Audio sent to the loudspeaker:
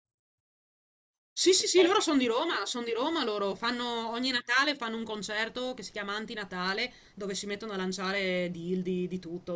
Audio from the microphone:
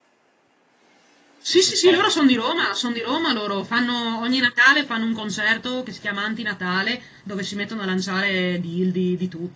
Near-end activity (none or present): none